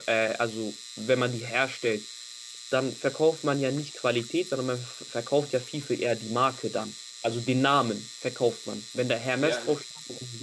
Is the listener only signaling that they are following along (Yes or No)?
No